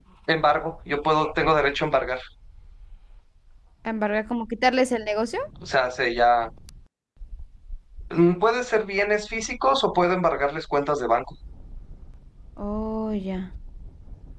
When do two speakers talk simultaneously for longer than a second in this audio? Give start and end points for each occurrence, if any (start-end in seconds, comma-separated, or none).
none